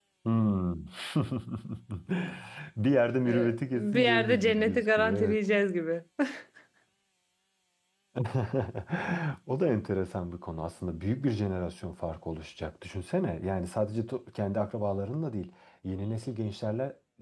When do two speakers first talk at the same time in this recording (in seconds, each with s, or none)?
3.2 s